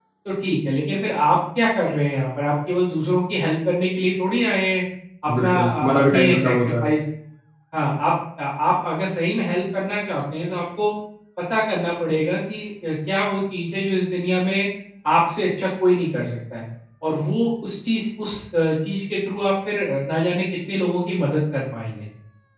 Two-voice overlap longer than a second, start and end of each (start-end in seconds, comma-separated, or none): 5.4-6.9